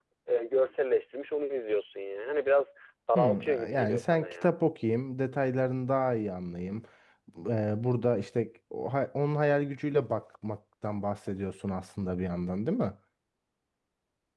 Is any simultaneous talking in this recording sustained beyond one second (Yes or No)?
Yes